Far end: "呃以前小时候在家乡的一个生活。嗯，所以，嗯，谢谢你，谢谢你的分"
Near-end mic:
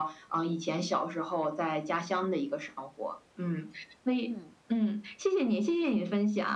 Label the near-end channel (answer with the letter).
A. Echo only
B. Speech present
B